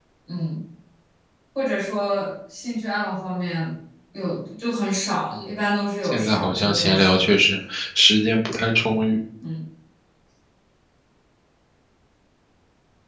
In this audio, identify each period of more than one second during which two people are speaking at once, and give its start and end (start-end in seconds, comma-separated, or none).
6.0-7.2